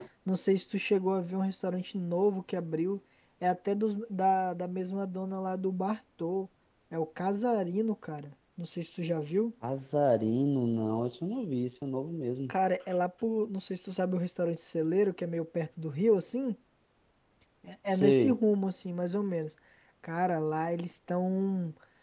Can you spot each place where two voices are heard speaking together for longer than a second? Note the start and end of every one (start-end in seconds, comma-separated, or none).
none